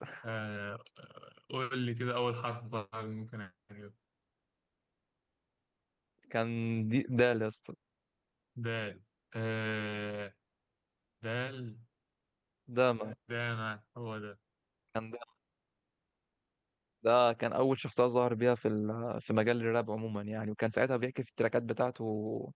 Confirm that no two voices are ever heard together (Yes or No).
Yes